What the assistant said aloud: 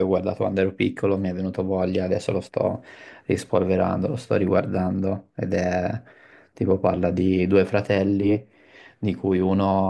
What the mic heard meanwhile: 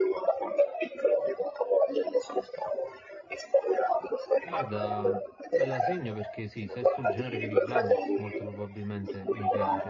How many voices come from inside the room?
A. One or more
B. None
A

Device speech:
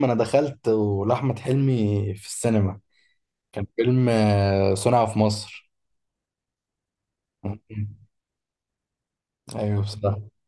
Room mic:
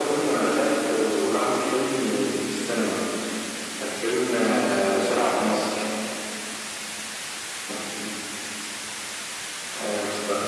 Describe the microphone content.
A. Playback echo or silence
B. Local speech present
A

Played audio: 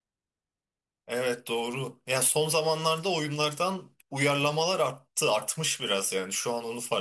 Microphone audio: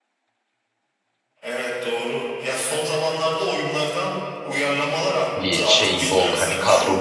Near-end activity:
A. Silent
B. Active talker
B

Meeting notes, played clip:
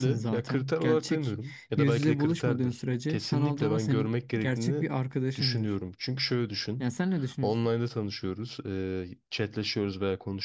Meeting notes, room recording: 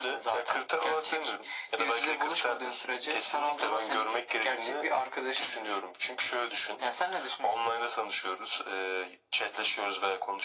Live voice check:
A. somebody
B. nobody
B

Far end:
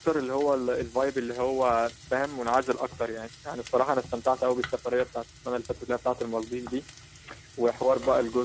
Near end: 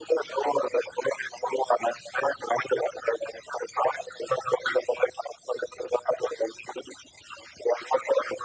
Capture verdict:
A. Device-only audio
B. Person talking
A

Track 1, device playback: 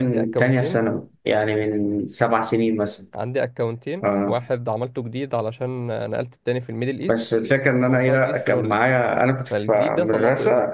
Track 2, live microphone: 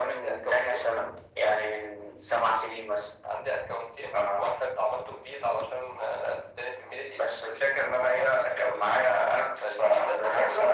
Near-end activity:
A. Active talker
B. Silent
B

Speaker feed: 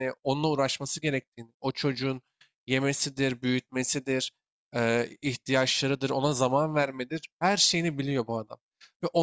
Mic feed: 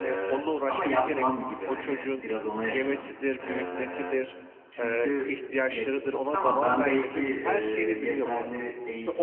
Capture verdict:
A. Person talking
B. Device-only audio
A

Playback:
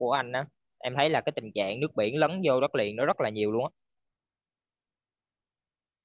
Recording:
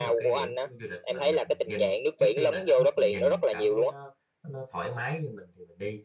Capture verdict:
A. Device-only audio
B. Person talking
B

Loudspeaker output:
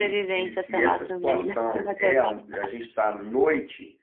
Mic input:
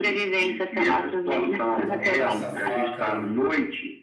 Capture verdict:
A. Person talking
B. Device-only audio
A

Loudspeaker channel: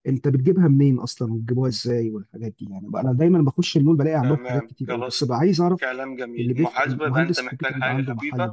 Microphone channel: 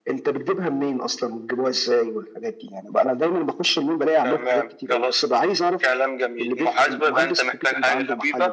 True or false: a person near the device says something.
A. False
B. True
A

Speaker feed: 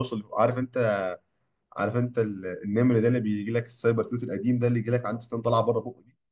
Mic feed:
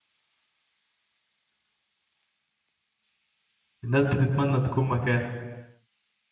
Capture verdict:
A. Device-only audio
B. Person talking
B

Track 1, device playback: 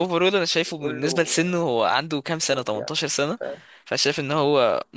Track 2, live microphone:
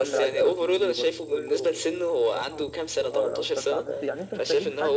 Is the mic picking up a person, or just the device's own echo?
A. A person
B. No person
A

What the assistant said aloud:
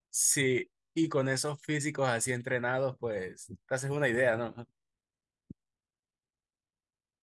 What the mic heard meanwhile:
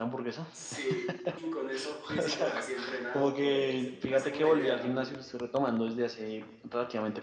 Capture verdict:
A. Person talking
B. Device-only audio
A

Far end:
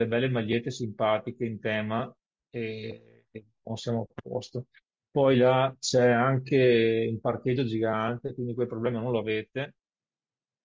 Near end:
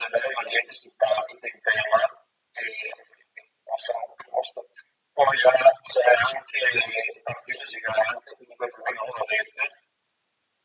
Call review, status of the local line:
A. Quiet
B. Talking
A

